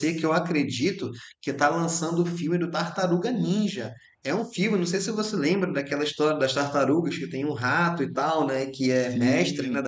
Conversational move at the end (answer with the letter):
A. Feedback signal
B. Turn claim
A